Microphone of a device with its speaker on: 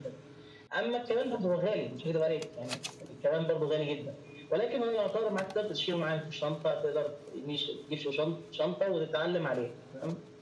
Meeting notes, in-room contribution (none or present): none